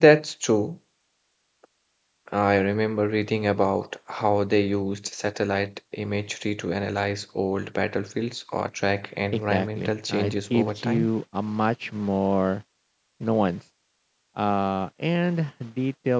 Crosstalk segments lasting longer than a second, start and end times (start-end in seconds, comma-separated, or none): 9.3-11.1